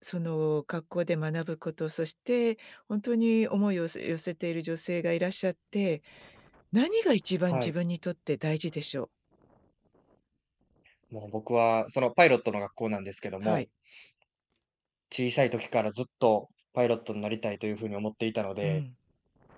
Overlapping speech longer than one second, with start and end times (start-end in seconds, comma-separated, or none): none